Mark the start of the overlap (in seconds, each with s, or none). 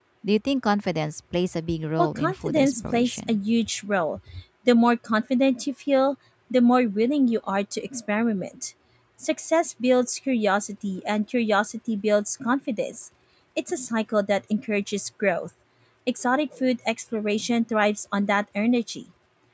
2.0 s